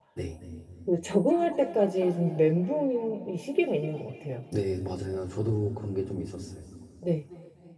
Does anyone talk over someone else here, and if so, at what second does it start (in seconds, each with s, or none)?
none